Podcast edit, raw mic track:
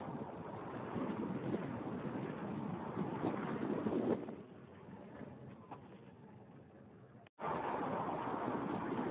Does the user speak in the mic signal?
No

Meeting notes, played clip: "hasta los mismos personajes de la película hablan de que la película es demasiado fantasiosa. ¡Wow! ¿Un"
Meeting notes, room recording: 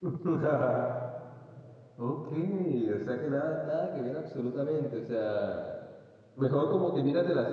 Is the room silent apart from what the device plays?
No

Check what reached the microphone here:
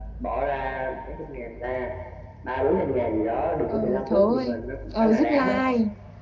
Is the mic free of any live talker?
No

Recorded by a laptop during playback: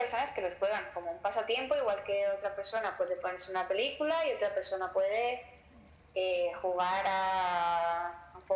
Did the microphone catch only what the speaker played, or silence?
Yes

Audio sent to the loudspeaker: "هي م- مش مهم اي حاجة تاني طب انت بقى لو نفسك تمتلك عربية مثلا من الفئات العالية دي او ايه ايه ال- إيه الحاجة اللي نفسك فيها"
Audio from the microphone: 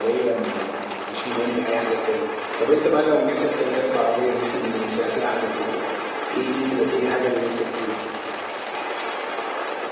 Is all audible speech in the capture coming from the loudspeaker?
Yes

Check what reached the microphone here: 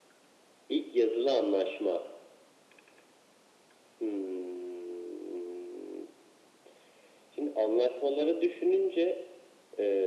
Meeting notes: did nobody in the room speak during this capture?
Yes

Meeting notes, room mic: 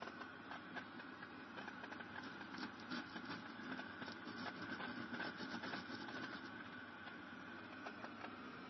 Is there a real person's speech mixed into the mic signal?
No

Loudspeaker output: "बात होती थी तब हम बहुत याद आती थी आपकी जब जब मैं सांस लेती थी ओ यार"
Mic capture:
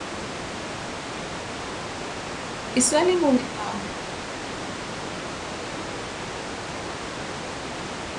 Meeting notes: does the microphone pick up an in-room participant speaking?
Yes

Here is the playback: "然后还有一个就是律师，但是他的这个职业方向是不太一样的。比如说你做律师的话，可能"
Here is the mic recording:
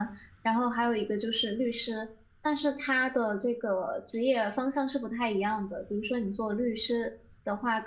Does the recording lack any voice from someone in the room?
Yes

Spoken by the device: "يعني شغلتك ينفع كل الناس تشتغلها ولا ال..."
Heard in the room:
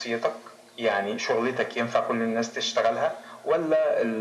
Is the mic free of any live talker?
Yes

